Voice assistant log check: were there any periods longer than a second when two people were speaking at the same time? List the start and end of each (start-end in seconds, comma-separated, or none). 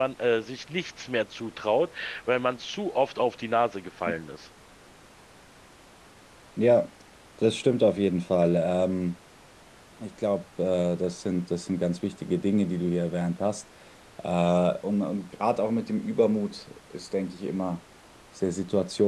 none